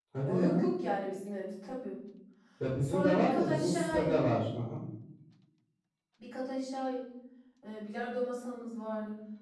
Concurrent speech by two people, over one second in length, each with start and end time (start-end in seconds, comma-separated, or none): 2.8-4.2